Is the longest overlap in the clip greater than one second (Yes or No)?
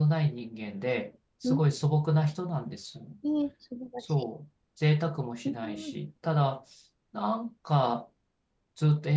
No